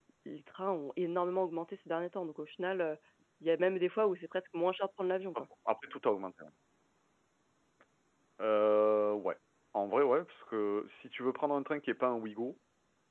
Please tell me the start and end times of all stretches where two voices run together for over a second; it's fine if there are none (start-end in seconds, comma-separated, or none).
none